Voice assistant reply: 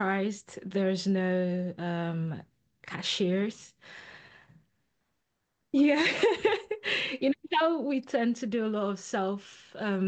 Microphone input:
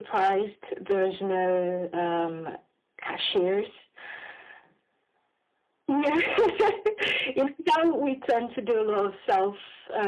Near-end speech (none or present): none